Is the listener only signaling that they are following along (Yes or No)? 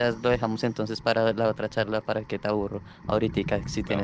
No